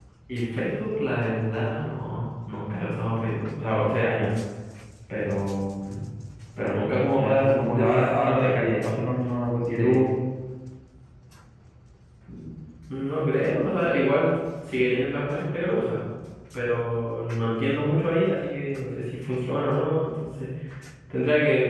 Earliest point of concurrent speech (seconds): 7.2 s

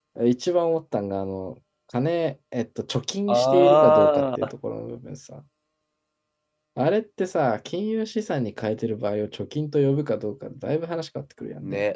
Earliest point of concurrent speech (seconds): 3.3 s

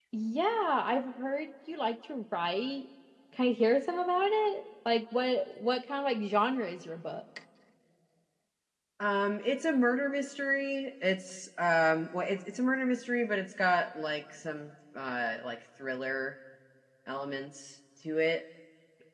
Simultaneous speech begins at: none

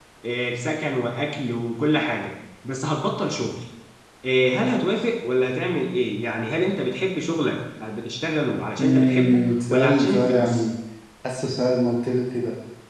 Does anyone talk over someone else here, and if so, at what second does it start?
8.8 s

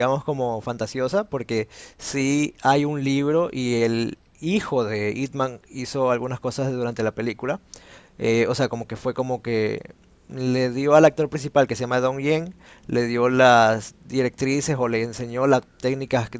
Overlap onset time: none

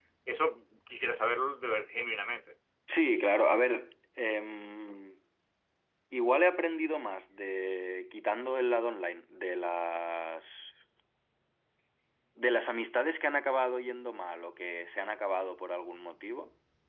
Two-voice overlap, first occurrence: none

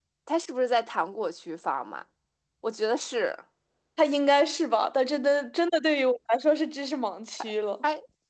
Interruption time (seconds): none

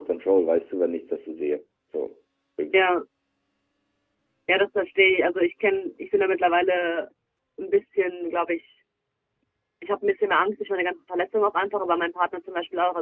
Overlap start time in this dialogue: none

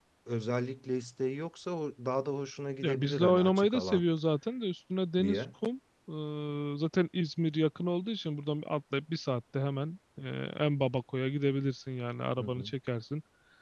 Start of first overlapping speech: 2.8 s

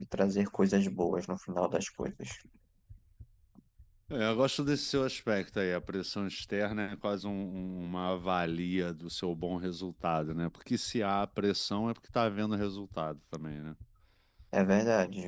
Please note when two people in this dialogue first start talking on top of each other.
none

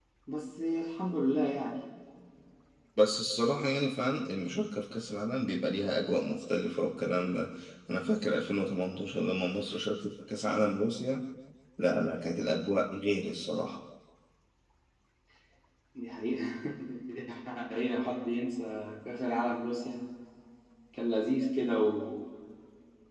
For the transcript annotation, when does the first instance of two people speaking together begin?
none

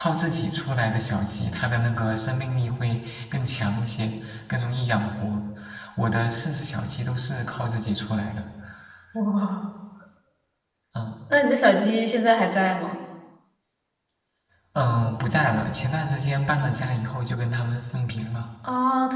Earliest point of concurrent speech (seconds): none

